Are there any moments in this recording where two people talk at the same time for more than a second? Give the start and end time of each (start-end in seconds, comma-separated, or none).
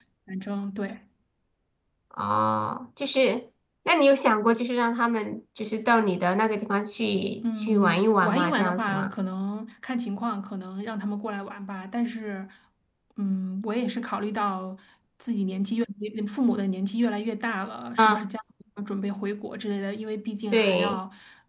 7.4-9.1